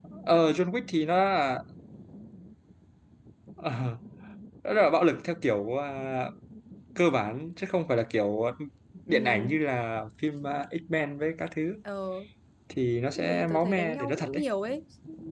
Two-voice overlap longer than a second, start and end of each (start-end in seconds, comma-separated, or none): 13.2-14.4